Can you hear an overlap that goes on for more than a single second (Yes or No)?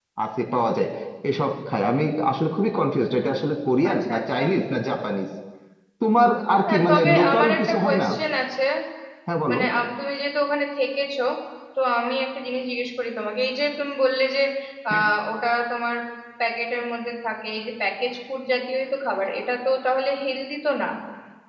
Yes